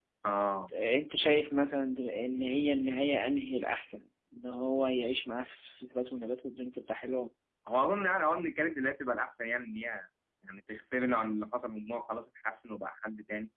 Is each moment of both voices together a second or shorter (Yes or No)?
Yes